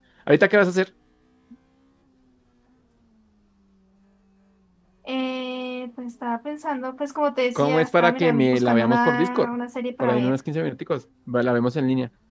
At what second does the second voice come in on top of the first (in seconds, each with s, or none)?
7.6 s